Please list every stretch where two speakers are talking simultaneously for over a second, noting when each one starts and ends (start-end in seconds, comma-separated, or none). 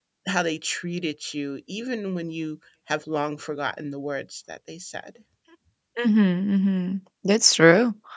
none